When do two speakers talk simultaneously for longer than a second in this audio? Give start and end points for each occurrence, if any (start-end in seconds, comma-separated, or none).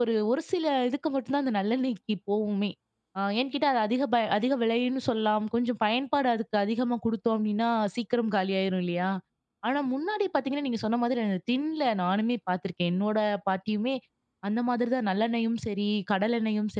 none